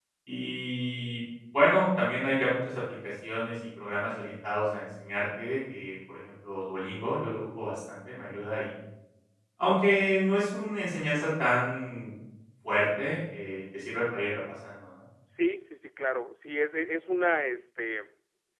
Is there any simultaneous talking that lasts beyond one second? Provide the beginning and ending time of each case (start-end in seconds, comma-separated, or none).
none